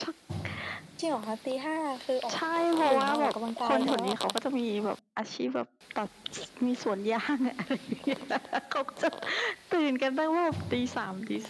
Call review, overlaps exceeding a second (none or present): present